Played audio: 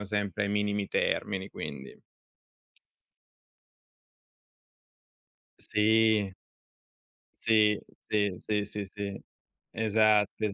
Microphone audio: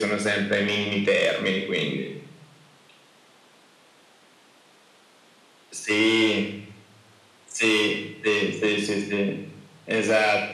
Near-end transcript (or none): none